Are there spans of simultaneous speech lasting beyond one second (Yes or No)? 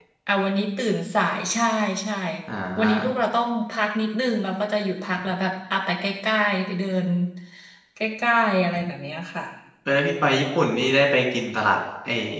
No